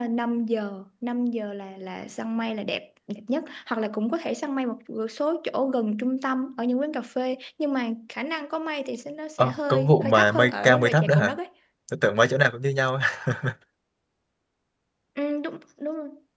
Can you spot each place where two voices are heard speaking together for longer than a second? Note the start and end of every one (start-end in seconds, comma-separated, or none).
9.4-11.3